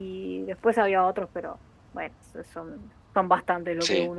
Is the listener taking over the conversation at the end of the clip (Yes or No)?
Yes